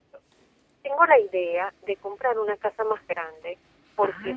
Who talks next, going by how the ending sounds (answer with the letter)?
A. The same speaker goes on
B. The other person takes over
A